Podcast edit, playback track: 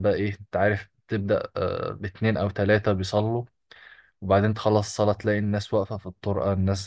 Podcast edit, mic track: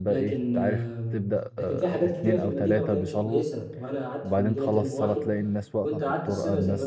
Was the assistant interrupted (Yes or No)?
Yes